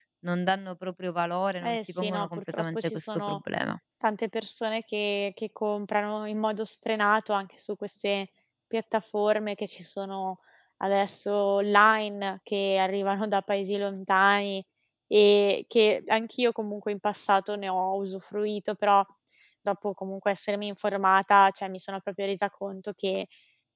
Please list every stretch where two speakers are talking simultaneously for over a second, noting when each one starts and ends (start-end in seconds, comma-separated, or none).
1.6-3.4